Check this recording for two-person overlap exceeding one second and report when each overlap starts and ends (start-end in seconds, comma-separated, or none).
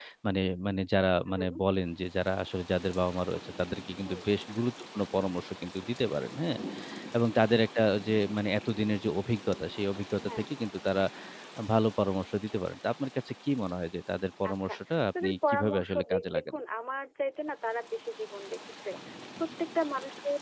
15.2-16.6